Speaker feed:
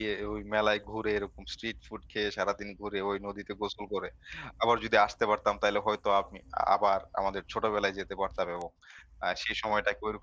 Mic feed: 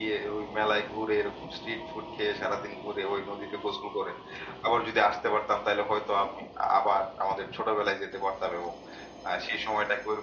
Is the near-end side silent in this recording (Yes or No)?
Yes